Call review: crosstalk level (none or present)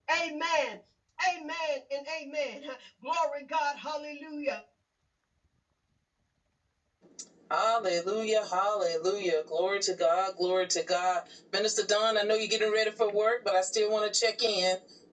none